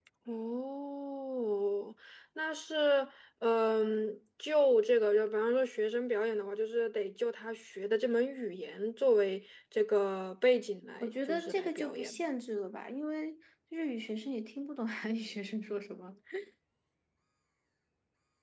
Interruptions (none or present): present